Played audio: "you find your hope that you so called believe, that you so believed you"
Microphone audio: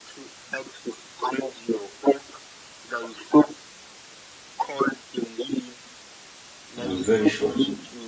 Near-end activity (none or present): present